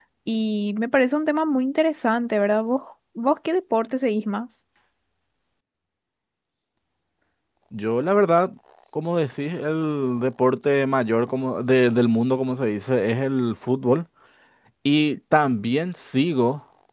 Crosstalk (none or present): none